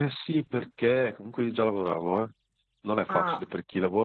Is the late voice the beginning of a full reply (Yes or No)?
No